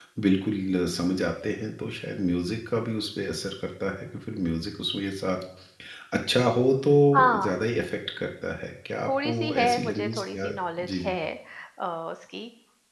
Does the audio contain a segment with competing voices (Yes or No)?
Yes